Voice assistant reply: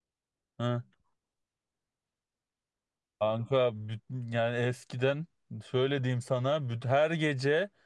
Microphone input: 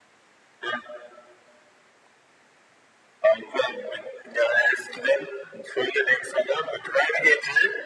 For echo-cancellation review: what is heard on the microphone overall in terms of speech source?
echo only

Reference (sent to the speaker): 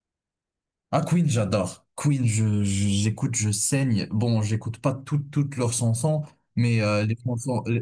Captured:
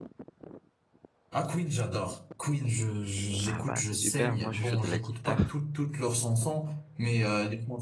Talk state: both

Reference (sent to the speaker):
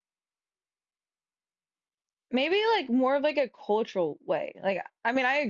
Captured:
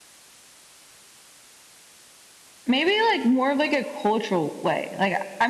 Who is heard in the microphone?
echo only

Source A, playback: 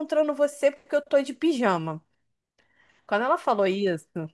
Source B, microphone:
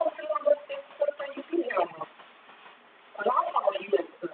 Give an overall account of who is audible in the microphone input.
echo only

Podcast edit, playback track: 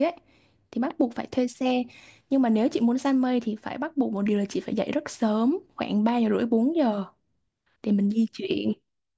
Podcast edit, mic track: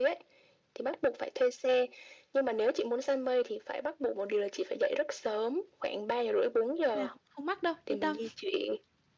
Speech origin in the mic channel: both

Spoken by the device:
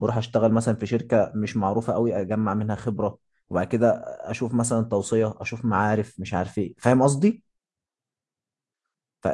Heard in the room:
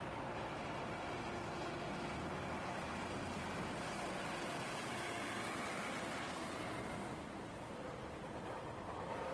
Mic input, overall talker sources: neither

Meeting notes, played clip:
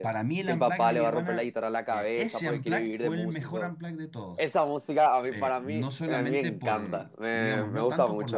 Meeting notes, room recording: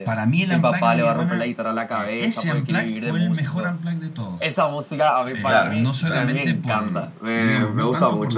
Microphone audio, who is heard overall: both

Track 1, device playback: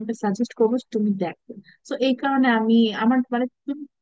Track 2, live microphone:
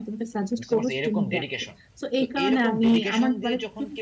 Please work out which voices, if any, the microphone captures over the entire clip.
both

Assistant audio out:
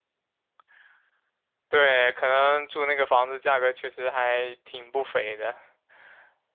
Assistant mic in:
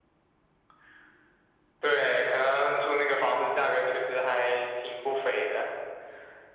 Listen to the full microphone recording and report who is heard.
echo only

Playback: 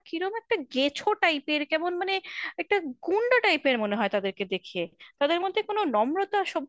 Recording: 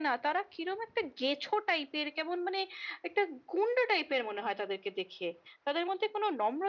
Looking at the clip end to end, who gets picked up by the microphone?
echo only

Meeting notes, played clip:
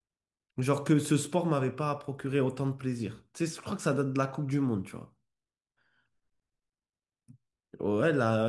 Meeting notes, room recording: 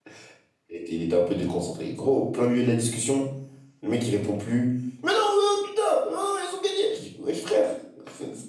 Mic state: user only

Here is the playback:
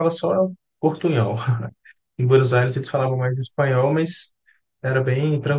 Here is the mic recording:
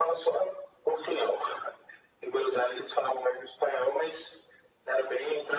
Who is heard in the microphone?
echo only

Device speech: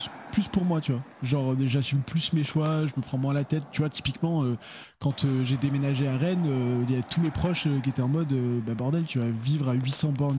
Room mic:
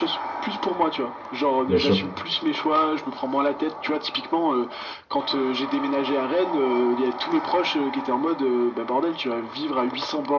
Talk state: both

